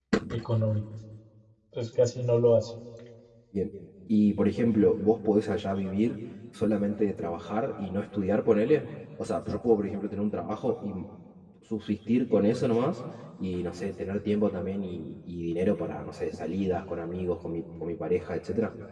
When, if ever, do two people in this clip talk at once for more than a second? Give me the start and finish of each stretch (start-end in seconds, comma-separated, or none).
none